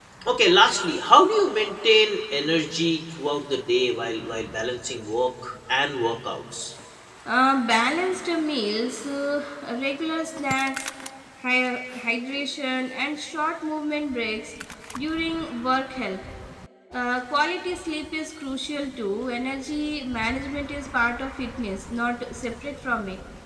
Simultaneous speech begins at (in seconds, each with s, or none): none